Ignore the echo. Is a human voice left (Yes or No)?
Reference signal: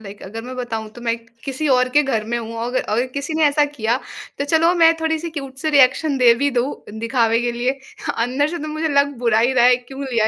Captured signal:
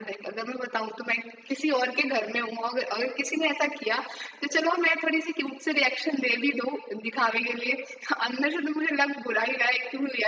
No